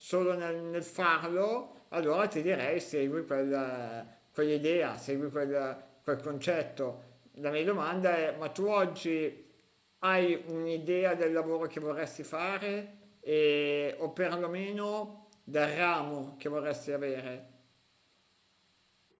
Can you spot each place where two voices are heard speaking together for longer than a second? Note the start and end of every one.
none

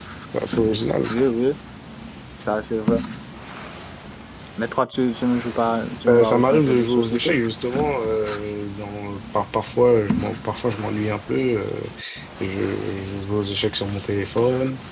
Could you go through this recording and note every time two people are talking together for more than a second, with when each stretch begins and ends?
6.1-7.3

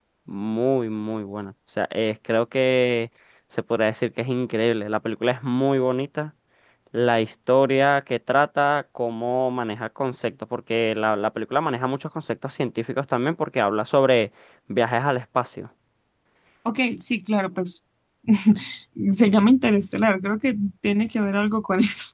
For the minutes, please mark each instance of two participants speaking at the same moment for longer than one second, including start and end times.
none

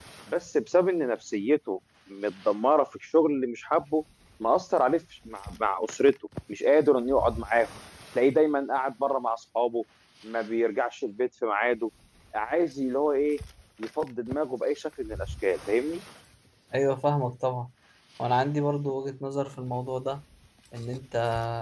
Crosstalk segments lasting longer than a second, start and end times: none

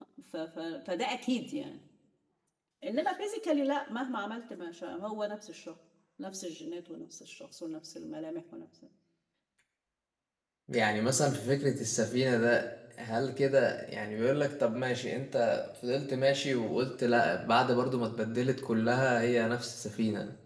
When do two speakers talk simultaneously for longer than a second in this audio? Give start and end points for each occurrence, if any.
none

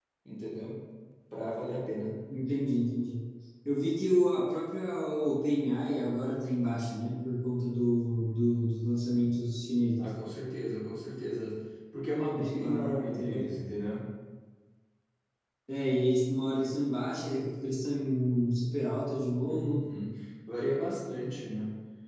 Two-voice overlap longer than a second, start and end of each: 12.3-13.6

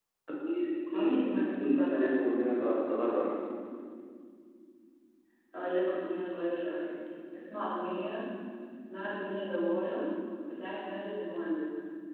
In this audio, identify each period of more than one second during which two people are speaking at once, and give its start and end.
0.9-2.2

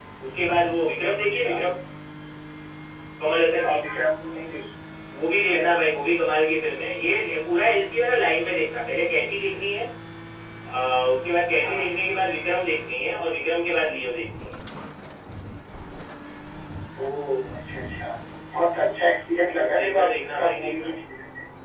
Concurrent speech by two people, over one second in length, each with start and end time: 19.6-20.9

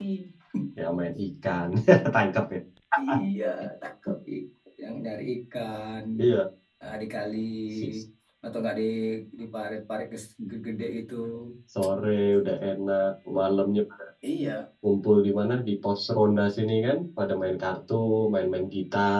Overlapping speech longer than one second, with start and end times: none

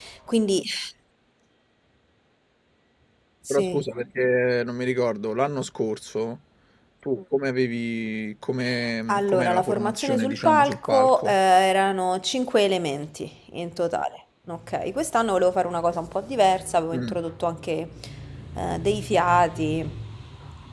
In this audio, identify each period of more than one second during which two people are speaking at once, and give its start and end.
9.1-11.4

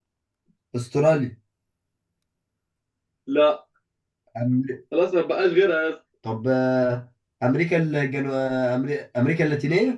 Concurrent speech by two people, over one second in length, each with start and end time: none

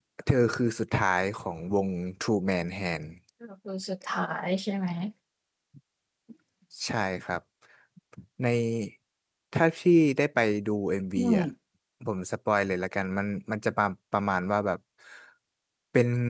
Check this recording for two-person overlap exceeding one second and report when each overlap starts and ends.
none

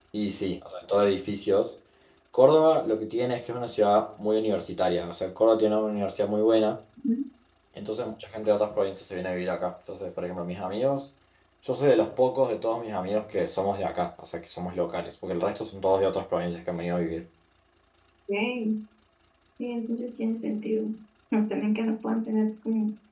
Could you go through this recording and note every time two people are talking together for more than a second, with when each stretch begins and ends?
none

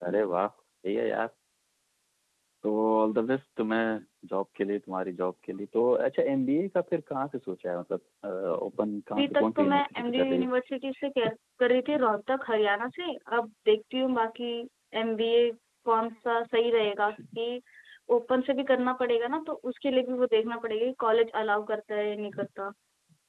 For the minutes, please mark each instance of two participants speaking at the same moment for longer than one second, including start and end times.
9.2-10.5

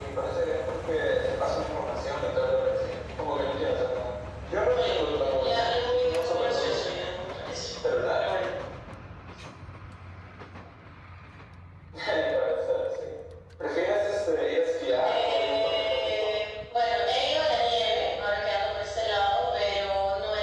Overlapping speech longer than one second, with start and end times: 4.7-6.9, 15.0-16.4

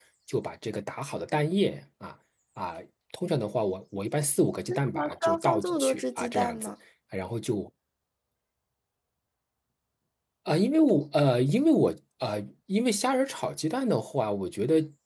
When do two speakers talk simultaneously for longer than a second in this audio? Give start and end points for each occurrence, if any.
4.7-6.7

